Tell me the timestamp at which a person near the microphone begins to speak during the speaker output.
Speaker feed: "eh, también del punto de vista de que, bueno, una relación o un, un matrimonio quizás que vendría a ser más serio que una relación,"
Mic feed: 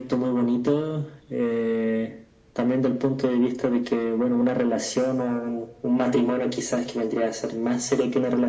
none

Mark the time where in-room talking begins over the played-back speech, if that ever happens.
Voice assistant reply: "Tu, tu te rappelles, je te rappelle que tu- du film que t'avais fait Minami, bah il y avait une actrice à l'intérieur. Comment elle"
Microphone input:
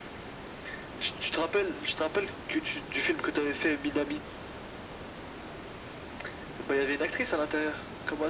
none

